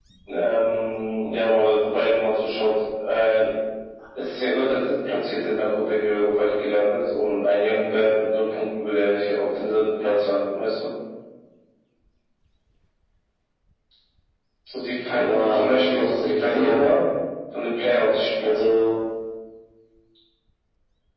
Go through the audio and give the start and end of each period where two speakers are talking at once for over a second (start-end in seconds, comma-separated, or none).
15.1-16.8